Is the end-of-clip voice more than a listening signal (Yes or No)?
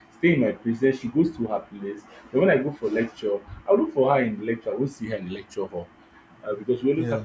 No